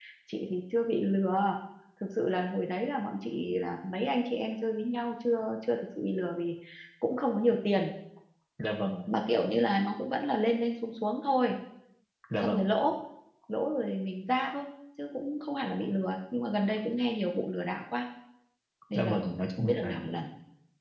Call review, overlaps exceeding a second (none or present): none